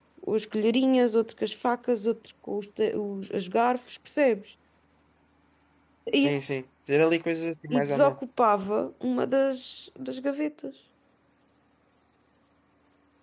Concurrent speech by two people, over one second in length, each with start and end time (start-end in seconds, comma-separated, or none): none